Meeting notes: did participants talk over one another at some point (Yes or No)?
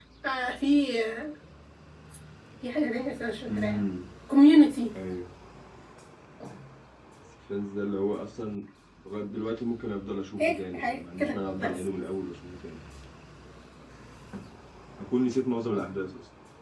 Yes